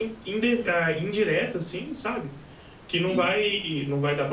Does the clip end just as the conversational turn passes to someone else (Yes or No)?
No